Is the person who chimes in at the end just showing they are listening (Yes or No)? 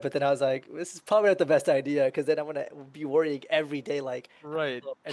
No